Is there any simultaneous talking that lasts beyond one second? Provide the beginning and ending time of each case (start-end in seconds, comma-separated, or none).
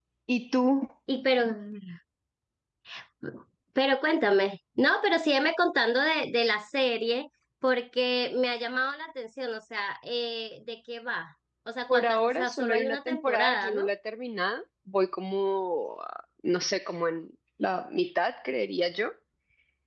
11.9-13.9